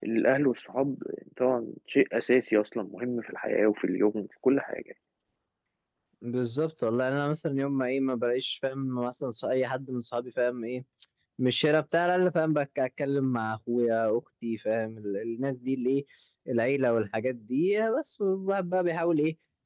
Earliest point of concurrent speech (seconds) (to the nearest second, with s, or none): none